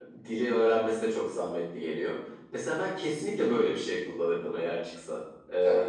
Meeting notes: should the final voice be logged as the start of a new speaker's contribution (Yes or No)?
No